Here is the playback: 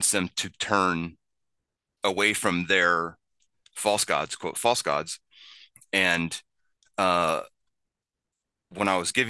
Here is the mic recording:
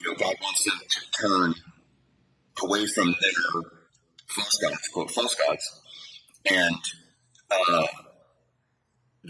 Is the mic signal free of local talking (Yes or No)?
Yes